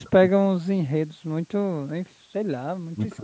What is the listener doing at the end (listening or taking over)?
taking over